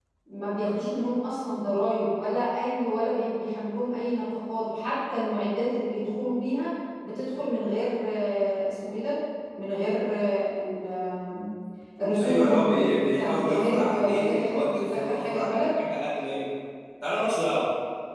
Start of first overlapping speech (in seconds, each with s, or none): 12.2 s